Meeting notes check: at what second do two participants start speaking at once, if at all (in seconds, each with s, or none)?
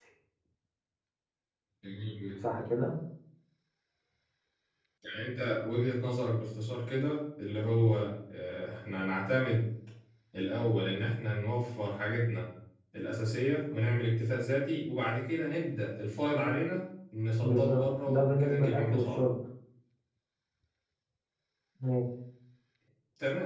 17.4 s